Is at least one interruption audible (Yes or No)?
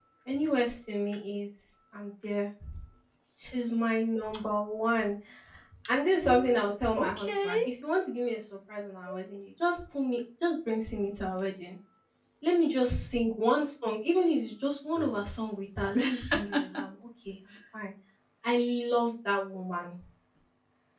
Yes